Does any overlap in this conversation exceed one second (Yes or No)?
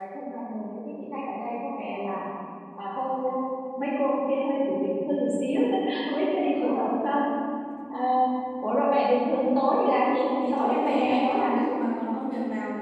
Yes